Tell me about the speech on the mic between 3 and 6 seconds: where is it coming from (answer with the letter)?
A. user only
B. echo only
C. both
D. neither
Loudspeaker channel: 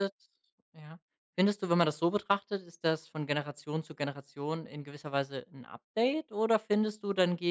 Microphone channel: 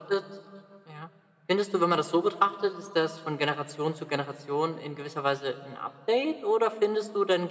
B